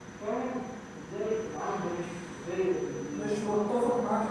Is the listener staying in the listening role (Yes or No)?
No